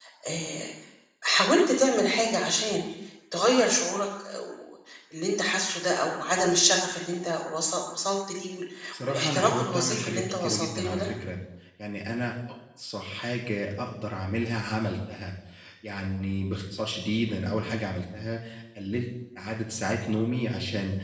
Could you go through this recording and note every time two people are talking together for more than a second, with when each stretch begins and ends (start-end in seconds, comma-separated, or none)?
9.1-11.1